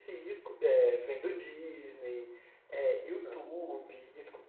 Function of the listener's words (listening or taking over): listening